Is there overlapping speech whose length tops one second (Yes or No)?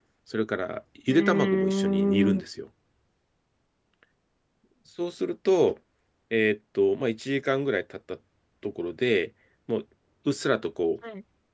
Yes